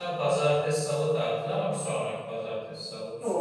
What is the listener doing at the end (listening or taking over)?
taking over